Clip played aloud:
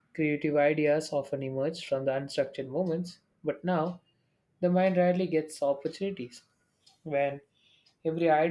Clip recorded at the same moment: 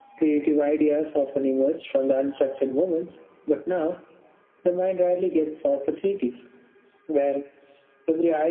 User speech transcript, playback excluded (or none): none